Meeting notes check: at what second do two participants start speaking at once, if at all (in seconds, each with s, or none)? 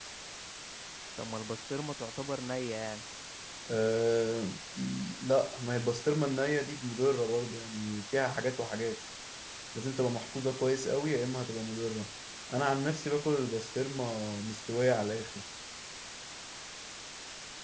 none